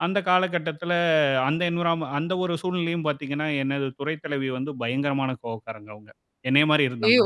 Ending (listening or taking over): listening